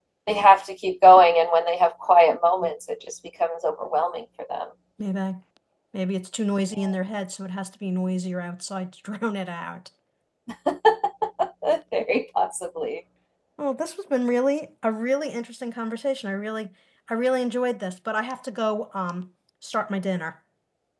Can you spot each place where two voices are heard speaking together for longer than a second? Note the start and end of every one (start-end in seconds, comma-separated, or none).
none